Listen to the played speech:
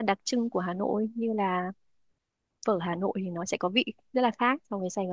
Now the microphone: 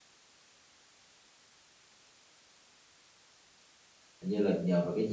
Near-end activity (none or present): present